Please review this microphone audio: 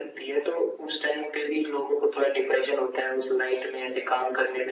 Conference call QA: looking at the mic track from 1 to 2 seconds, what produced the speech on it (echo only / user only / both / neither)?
echo only